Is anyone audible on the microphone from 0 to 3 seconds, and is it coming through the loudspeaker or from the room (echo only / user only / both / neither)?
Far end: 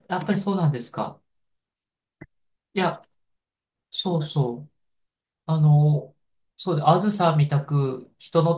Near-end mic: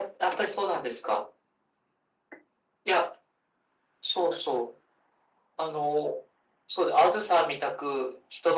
echo only